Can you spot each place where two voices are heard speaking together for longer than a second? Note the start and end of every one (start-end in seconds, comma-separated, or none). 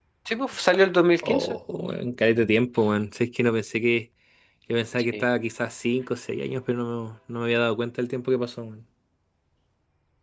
none